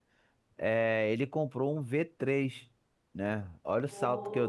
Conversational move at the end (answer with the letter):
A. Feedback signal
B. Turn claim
A